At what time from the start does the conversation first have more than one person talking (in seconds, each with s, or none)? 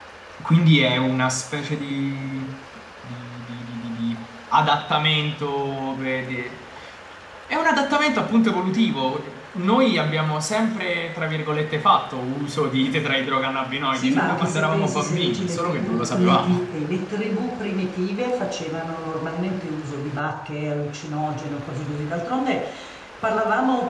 13.9 s